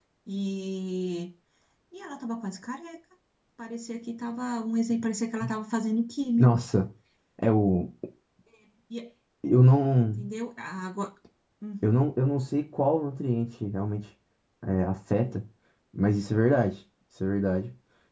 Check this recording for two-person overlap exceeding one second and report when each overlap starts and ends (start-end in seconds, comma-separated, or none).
none